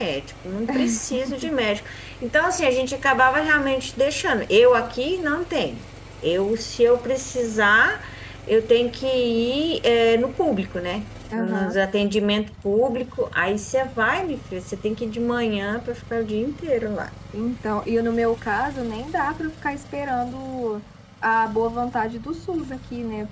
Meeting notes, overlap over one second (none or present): none